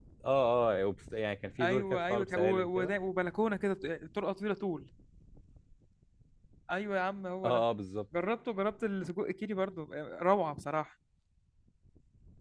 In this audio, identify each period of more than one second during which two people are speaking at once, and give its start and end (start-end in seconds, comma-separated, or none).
1.6-2.9